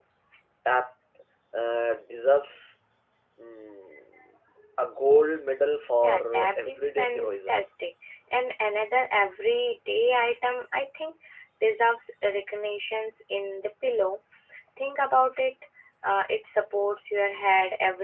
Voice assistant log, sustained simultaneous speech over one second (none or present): present